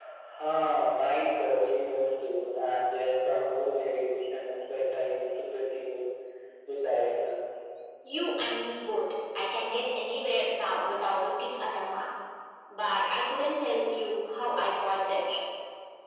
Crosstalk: none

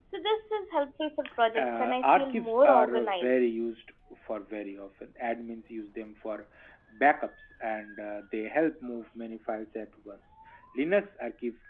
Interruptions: present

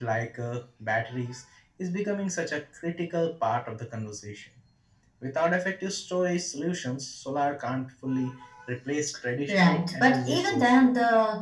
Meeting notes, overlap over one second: present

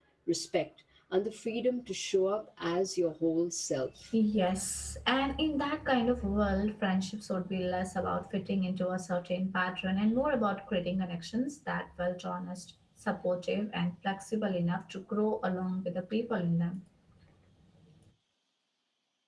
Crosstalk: none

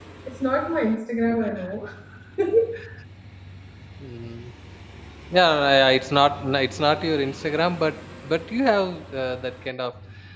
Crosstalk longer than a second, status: none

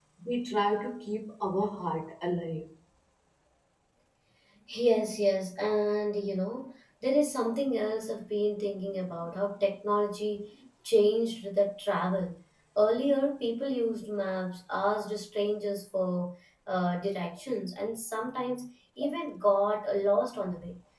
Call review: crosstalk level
none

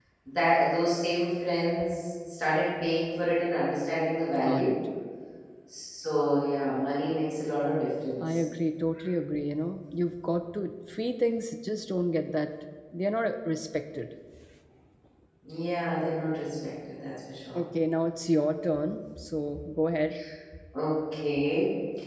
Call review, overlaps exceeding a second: none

